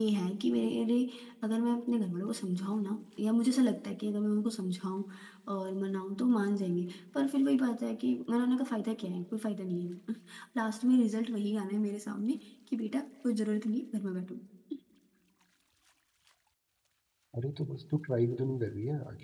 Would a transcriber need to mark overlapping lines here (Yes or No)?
No